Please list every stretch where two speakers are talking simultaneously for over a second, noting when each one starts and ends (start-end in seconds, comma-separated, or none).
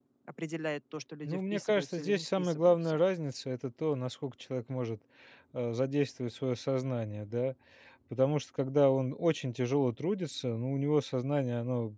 1.2-3.0